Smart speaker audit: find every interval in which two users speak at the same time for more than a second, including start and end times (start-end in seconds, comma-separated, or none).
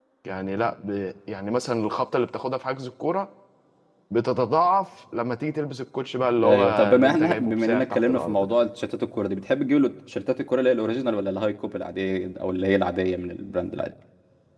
6.4-8.5